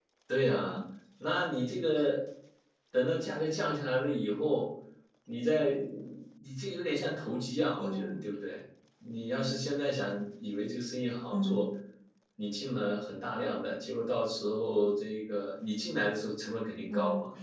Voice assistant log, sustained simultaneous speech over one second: none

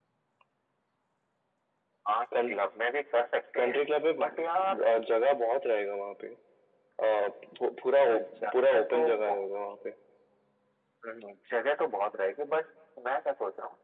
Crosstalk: present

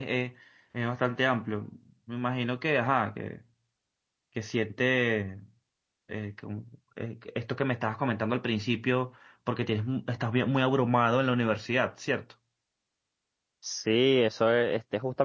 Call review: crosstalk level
none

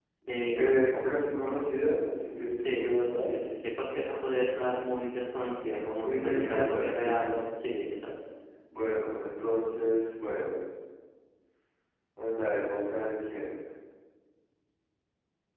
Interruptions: present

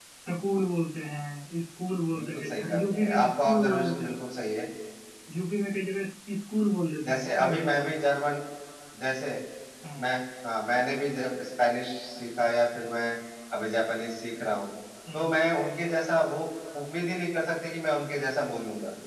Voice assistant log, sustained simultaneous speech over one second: present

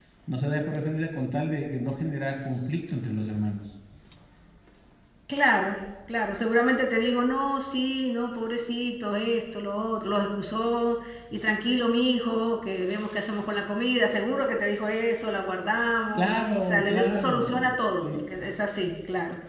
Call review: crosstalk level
present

